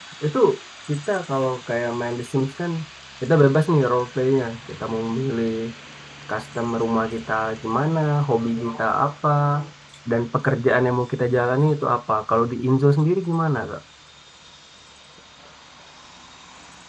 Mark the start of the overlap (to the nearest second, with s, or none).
none